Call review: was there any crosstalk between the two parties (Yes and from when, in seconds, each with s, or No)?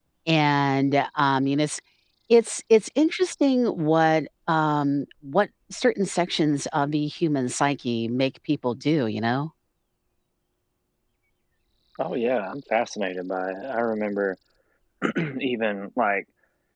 No